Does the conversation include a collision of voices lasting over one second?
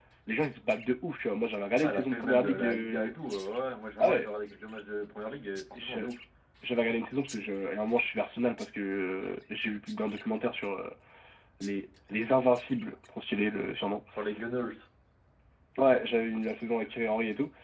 Yes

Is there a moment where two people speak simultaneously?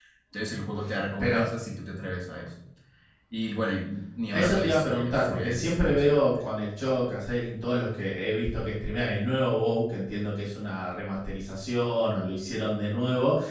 Yes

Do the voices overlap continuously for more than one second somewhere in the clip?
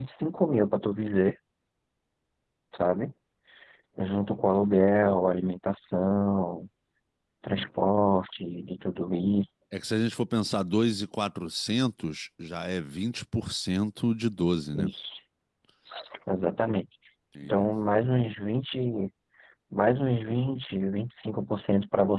No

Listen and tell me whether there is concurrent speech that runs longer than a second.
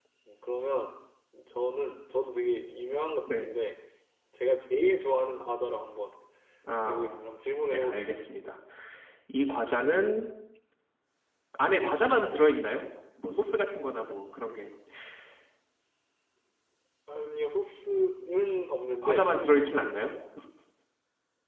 No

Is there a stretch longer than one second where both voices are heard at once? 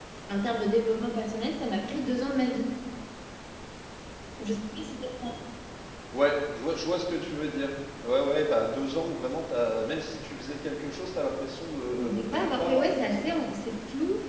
Yes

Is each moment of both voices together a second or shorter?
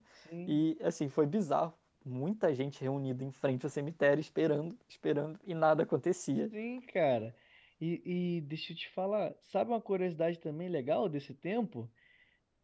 Yes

